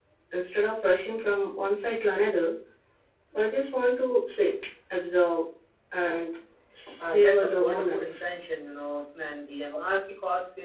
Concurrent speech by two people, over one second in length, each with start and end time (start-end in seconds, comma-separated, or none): 7.0-8.2